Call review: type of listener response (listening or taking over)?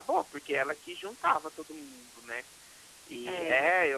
listening